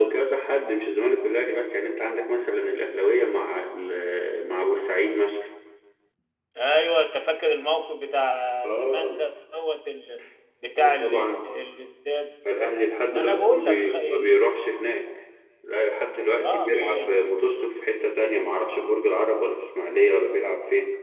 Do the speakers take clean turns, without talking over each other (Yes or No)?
No